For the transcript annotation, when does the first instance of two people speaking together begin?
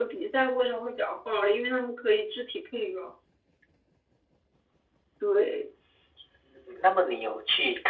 none

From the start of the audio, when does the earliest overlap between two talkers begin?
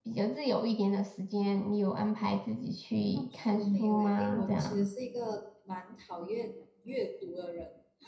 3.1 s

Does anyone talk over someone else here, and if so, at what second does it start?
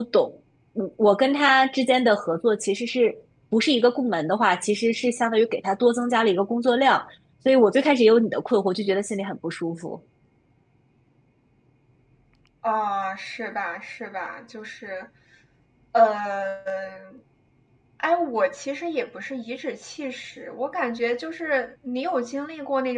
none

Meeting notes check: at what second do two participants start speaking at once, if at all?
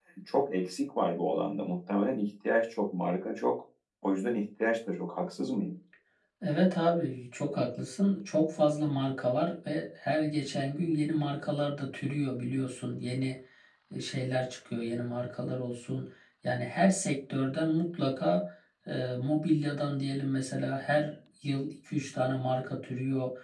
none

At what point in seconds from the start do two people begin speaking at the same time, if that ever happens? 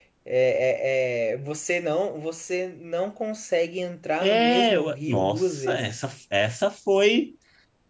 4.2 s

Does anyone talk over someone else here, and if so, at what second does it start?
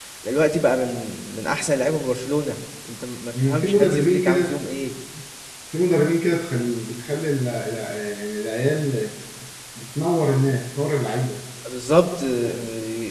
3.3 s

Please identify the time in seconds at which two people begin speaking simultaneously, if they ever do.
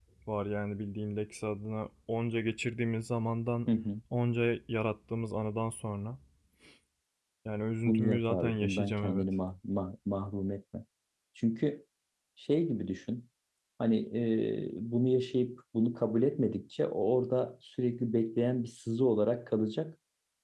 7.8 s

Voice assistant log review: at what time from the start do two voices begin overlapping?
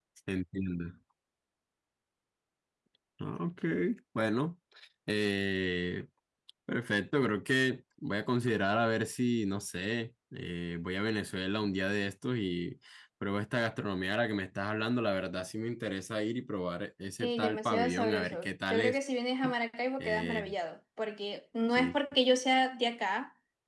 17.2 s

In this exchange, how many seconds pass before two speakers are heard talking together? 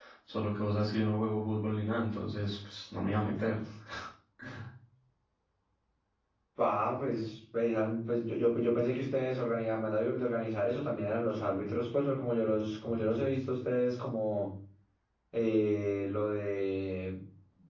none

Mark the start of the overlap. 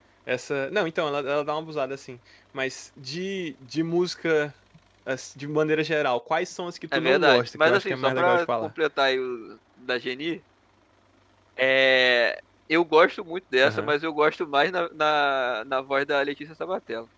6.9 s

